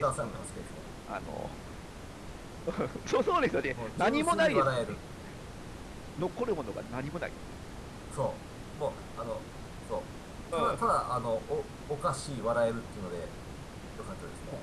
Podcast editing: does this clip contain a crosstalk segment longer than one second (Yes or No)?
Yes